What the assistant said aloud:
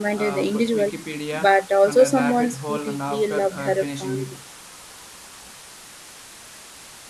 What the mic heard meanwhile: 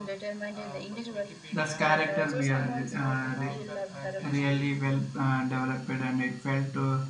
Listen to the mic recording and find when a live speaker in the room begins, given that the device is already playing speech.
1.5 s

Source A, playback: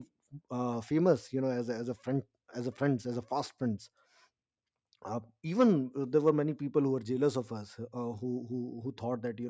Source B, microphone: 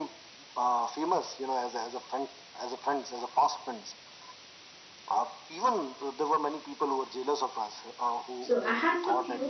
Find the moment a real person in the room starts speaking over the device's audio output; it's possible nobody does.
8.4 s

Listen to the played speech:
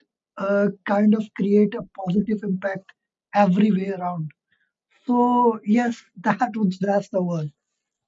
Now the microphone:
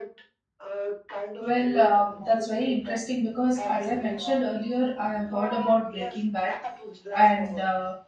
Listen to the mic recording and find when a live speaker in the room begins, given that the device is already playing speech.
1.4 s

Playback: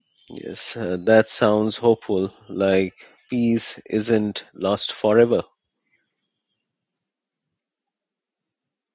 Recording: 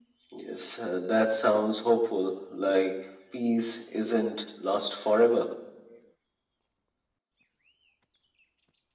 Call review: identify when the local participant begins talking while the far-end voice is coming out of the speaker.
none

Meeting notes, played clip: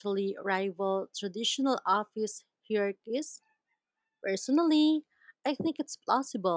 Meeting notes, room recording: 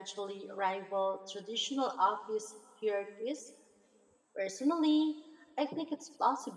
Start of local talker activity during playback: none

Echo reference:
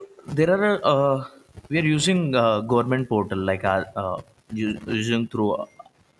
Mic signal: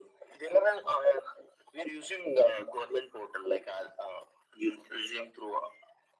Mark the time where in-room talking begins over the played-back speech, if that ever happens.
none

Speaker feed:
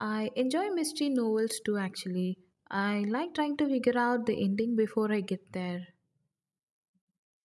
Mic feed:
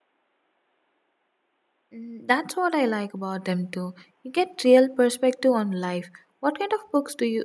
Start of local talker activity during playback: 1.9 s

